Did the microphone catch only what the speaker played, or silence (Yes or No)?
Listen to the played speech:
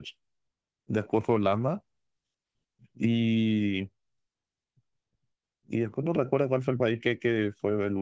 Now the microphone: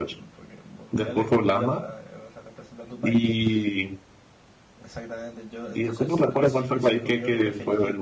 No